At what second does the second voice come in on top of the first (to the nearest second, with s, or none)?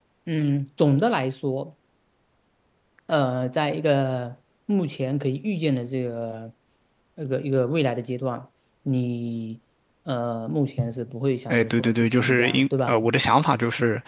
11 s